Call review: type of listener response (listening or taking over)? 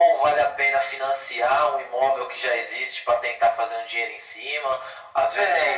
listening